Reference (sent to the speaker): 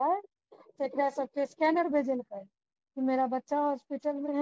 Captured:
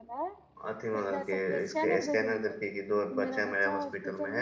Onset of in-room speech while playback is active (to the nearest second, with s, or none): 1 s